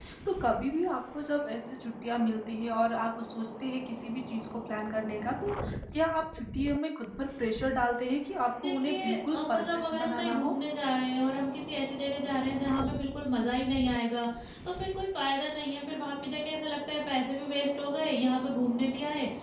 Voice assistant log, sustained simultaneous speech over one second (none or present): present